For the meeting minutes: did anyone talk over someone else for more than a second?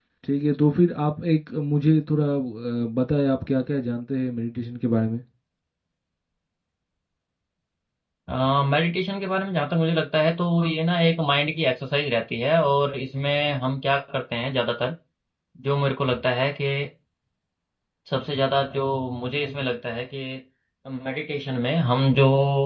No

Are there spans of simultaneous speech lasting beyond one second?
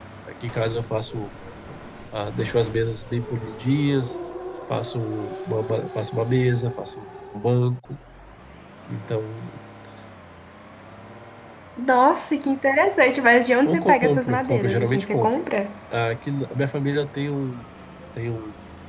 Yes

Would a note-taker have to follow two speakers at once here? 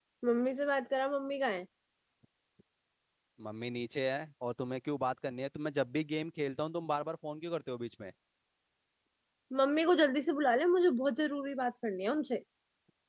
No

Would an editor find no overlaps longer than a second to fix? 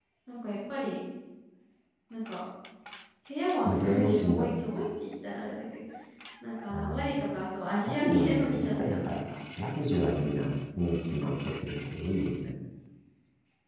No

